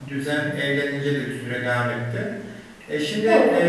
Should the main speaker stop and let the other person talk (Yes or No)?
No